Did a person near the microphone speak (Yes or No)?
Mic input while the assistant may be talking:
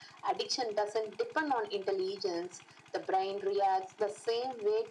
No